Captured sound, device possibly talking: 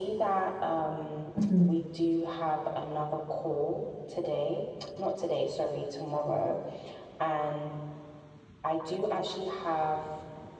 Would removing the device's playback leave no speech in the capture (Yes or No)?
No